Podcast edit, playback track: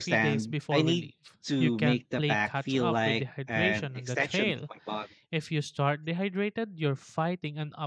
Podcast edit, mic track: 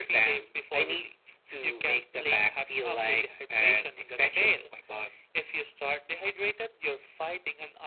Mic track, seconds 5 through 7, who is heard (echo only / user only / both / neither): echo only